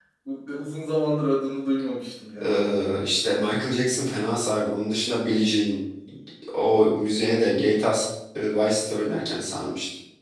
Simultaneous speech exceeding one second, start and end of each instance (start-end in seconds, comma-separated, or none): none